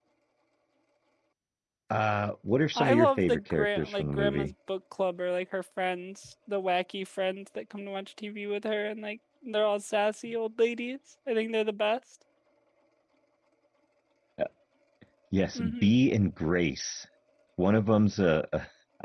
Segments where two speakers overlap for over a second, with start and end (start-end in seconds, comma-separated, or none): 2.8-4.5